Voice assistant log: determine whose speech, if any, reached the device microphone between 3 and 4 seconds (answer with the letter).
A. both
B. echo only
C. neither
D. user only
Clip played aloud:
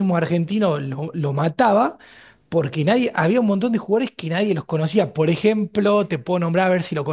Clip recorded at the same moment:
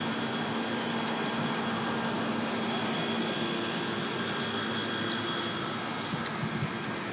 C